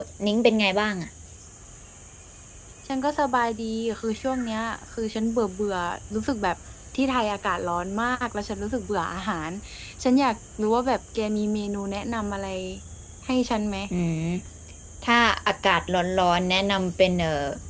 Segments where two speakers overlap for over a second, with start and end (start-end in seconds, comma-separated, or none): none